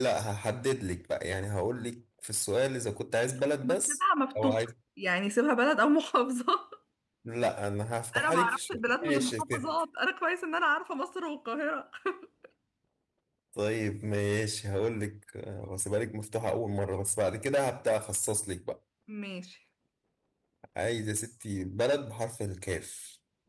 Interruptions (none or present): present